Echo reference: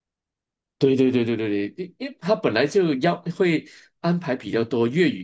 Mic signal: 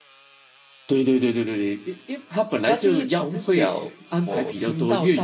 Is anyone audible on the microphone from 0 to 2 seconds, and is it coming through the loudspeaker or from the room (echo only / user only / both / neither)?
echo only